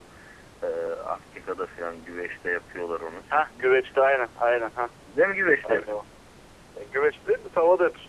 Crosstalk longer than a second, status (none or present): none